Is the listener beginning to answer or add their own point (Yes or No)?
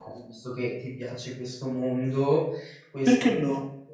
No